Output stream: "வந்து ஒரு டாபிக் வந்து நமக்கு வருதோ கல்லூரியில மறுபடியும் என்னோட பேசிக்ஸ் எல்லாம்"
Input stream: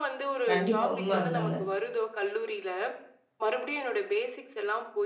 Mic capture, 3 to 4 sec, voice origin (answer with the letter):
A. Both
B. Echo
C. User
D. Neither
B